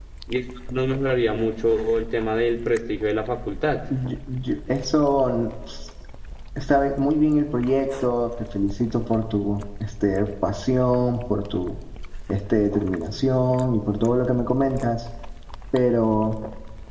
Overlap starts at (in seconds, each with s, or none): none